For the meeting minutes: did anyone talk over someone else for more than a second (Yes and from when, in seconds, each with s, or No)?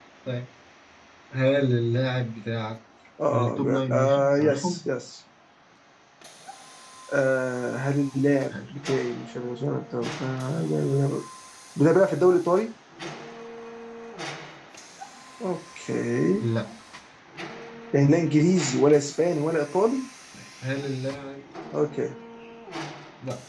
Yes, from 3.3 s